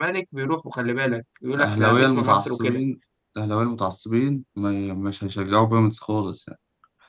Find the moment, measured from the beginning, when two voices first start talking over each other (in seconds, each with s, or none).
1.5 s